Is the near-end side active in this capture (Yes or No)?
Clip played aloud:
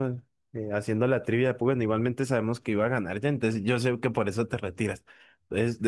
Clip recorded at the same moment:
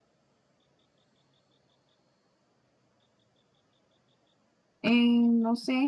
Yes